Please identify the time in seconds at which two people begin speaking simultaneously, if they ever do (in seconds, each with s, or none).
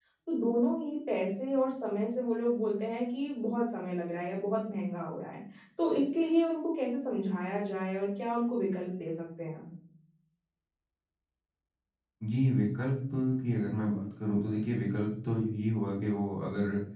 none